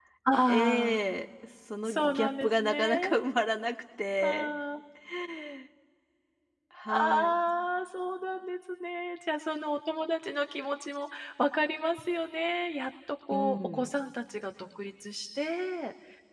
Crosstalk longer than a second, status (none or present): present